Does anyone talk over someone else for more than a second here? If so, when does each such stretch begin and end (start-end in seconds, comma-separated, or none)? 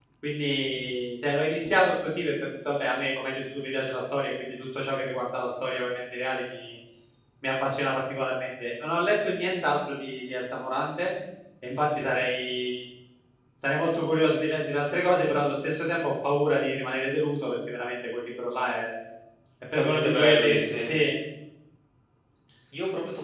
19.7-20.9